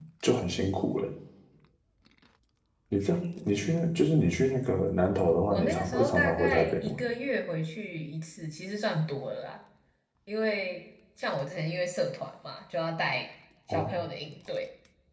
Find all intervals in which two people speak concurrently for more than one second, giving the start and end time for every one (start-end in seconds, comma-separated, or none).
5.5-7.0